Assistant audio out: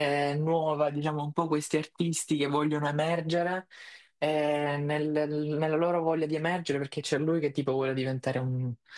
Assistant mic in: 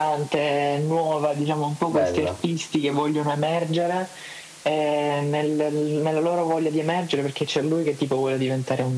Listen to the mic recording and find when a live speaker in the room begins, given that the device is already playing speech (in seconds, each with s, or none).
1.9 s